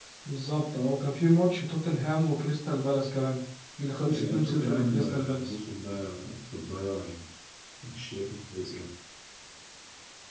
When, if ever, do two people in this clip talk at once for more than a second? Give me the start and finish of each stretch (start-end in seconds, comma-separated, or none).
4.1-5.5